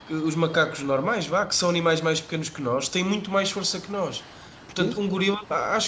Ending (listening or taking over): listening